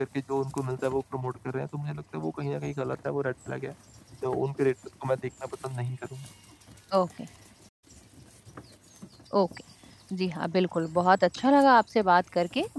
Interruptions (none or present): none